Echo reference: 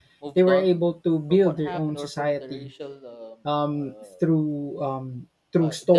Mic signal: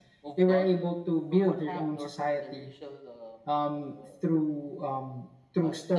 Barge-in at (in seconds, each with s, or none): none